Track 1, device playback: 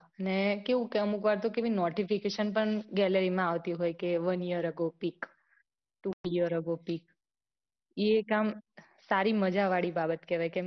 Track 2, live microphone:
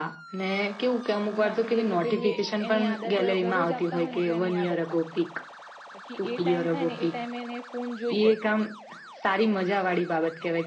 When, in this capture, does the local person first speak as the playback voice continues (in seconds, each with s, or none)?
1.2 s